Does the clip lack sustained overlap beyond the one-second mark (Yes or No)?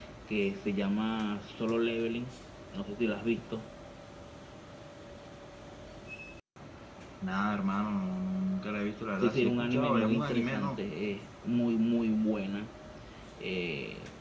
No